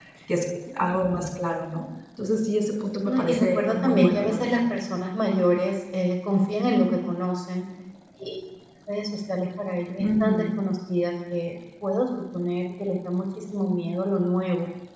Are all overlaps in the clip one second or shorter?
No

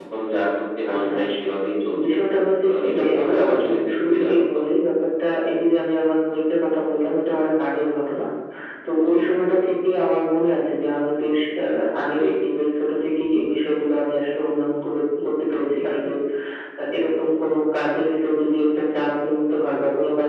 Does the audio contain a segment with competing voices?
Yes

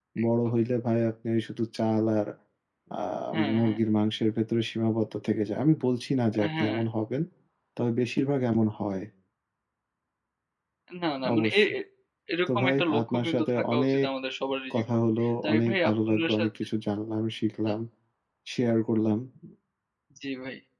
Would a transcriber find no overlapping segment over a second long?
No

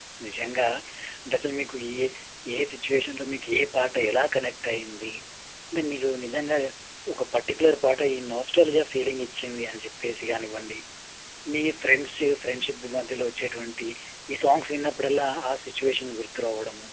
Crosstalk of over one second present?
No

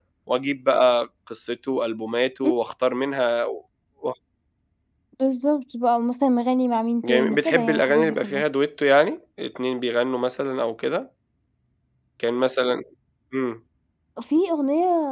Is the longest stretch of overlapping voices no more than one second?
No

